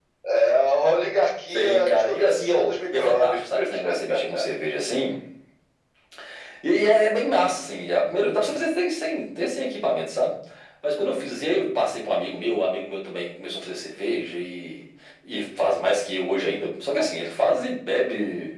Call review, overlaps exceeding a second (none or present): present